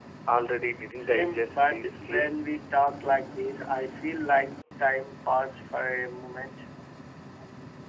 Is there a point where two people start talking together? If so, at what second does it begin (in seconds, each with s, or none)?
1.0 s